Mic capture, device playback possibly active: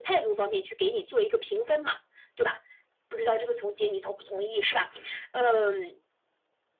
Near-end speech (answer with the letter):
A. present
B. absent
B